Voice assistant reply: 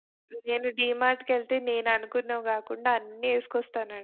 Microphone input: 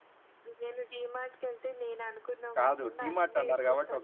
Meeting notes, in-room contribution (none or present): present